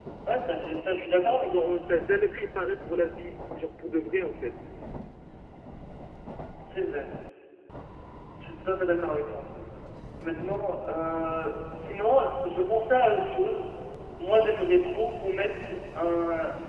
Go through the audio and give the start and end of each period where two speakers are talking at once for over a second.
none

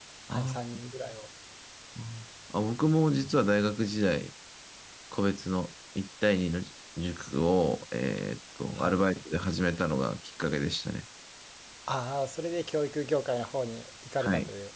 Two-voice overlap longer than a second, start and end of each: none

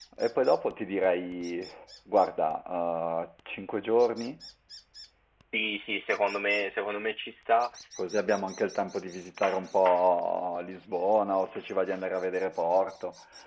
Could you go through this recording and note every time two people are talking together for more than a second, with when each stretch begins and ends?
none

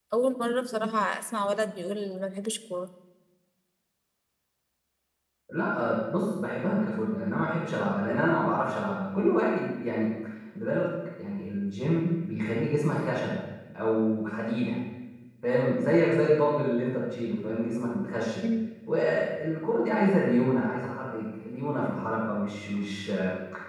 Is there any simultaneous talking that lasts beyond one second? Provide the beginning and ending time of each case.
none

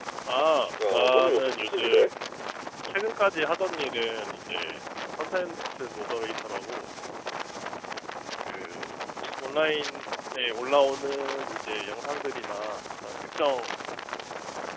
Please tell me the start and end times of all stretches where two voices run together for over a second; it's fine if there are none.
0.9-2.1

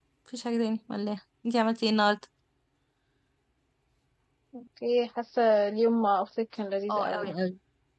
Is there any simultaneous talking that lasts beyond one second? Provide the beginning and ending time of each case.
none

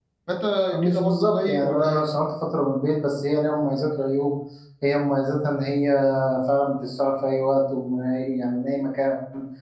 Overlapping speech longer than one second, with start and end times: 0.7-2.0

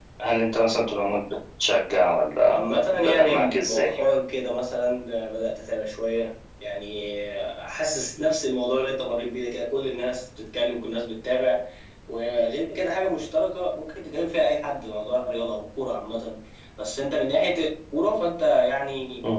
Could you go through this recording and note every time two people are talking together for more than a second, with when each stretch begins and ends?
2.4-3.9

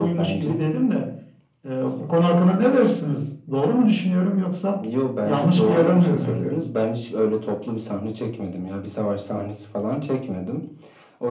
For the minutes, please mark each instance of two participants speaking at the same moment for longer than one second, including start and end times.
5.2-6.7

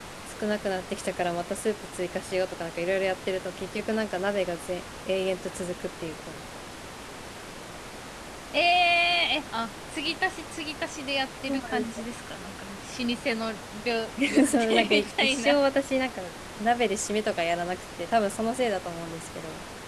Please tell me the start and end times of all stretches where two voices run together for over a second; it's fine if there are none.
14.3-15.6

